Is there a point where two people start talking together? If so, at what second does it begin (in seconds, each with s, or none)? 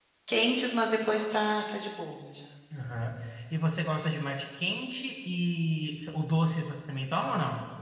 none